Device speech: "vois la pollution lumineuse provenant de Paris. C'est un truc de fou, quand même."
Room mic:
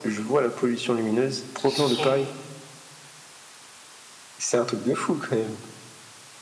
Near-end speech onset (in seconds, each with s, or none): 1.6 s